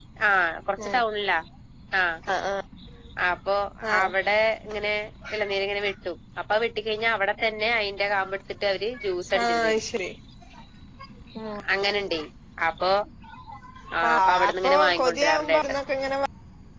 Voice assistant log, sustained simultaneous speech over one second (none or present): present